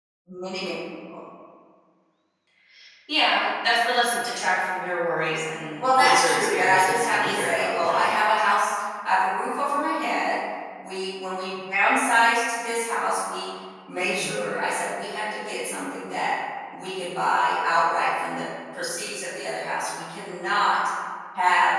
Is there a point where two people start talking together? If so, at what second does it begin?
5.8 s

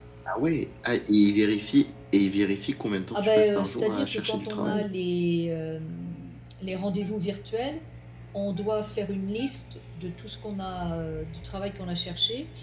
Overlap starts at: 3.1 s

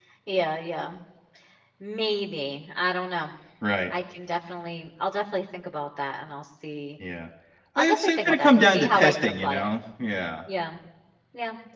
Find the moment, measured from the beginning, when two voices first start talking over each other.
7.8 s

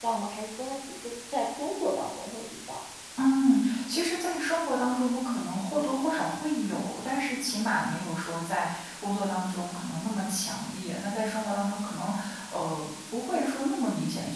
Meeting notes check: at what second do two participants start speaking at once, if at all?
none

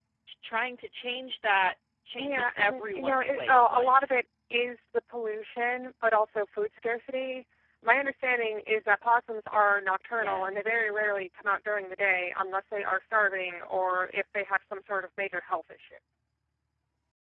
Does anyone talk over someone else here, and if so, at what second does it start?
2.2 s

